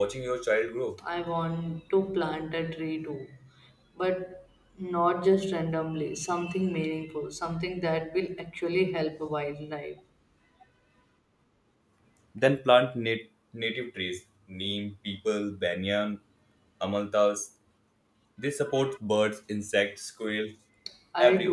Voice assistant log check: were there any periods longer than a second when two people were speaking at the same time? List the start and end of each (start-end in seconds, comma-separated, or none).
none